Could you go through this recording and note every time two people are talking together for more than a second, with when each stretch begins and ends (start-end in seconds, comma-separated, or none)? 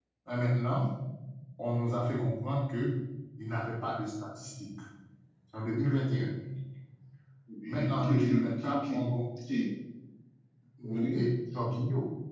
7.7-9.0